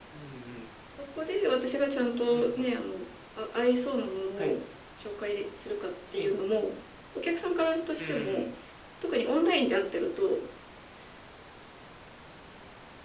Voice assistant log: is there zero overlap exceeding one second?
Yes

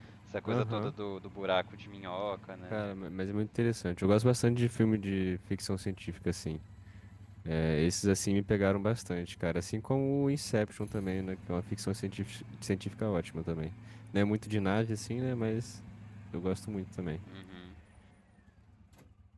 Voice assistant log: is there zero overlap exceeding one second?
Yes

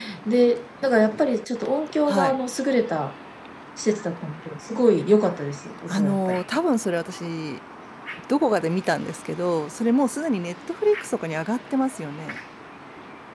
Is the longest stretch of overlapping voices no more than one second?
Yes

